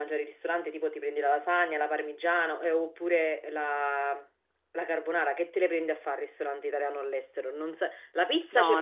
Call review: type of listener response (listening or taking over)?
listening